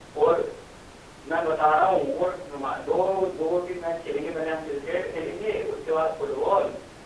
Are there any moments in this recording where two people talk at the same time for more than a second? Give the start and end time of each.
none

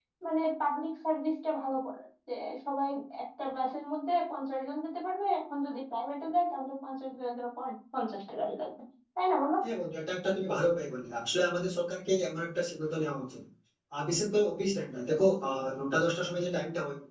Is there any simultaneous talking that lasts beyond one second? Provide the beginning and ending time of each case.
none

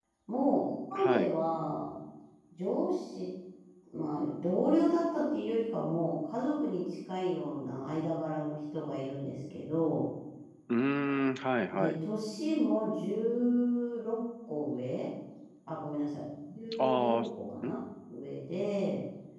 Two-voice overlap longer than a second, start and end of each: none

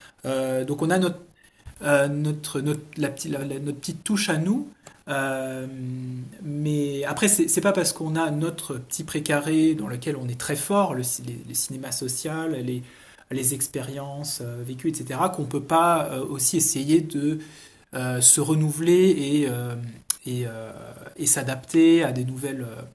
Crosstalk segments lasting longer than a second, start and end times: none

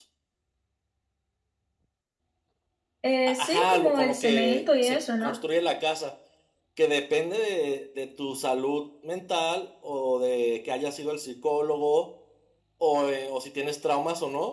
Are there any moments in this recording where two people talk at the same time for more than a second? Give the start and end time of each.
3.3-5.3

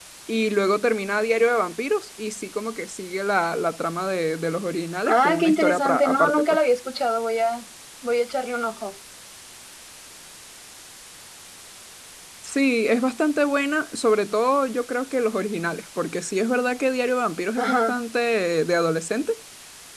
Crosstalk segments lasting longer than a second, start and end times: 5.1-6.4

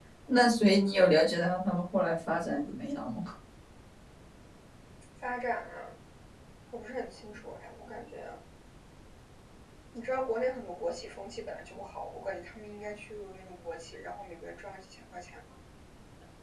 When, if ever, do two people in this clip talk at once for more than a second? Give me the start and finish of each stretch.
none

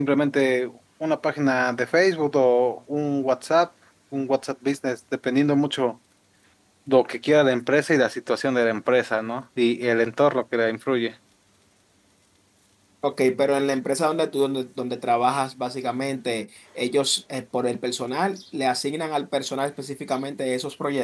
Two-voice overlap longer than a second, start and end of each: none

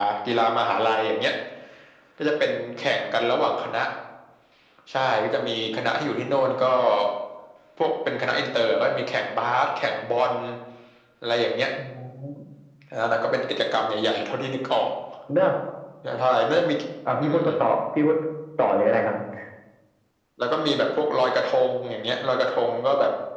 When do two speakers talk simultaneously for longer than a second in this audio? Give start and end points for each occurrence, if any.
none

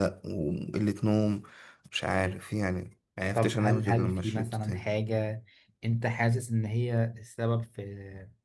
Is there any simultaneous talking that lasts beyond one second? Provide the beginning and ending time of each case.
3.4-4.9

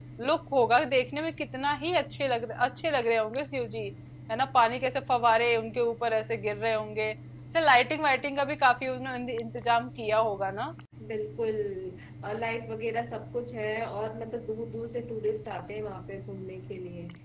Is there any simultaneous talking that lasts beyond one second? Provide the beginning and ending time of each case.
none

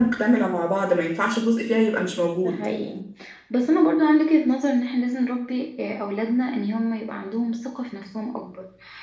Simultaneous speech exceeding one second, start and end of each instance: none

